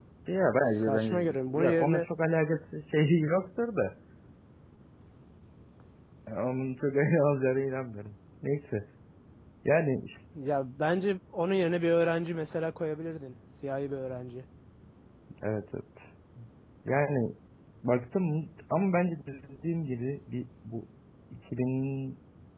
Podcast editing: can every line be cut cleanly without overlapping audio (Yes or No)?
No